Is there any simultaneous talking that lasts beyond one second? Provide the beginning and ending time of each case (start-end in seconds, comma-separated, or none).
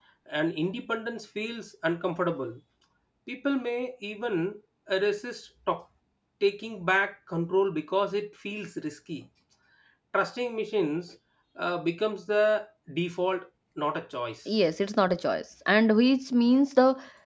none